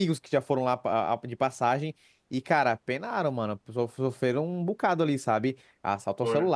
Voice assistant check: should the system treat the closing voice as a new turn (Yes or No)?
No